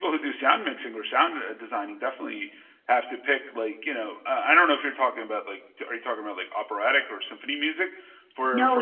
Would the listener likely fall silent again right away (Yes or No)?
No